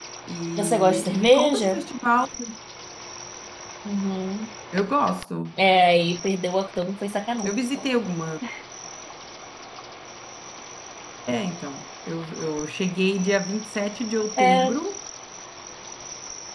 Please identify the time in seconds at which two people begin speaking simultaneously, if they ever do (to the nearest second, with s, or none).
1 s